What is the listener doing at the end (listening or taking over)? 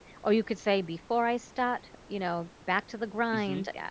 listening